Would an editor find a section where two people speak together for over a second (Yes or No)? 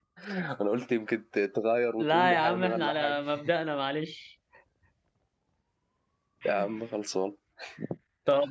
Yes